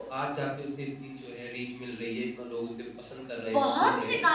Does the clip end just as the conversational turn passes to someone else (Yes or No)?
Yes